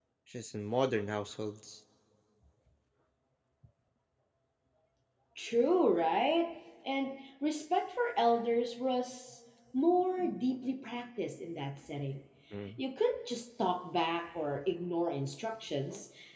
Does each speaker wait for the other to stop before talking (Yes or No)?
Yes